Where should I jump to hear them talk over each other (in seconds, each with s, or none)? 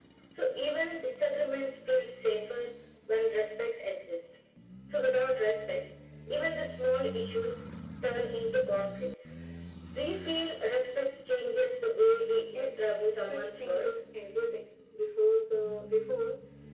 12.5 s